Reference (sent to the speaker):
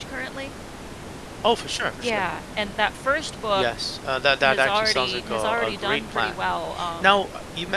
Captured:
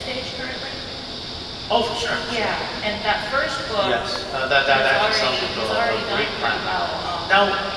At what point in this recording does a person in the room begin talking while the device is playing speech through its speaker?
none

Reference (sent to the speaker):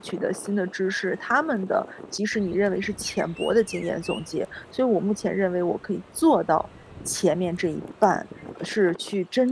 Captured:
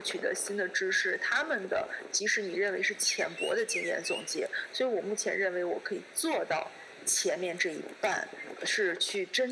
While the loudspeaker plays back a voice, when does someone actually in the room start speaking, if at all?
none

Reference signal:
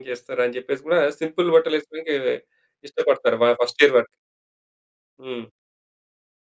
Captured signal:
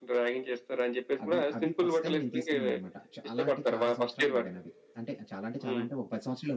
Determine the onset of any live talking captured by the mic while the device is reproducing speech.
1.2 s

